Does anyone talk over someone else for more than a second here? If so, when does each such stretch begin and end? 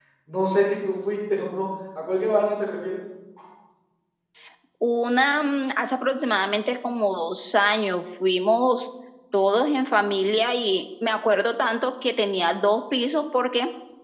none

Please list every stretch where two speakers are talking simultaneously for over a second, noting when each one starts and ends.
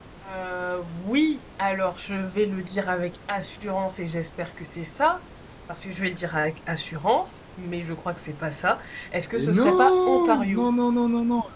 9.3-10.7

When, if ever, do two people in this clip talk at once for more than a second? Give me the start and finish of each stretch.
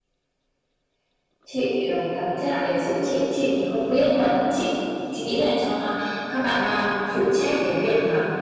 none

